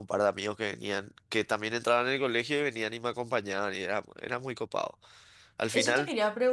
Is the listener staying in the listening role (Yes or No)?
No